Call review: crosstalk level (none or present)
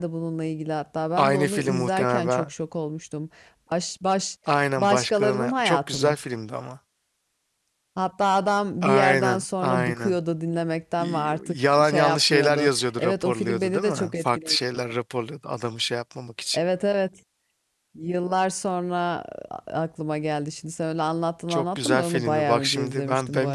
present